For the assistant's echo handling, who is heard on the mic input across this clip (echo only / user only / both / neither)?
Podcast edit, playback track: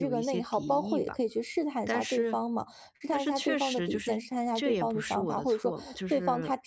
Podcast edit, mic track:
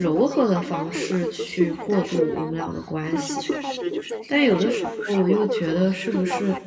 both